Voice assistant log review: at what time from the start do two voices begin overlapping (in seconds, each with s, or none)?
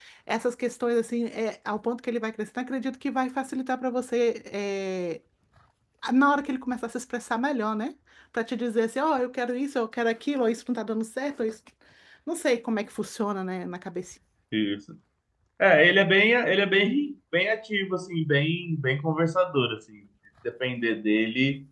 none